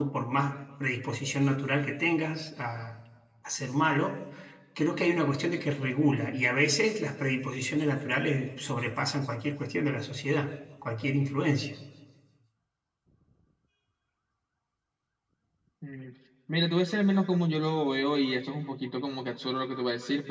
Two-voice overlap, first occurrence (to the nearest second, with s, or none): none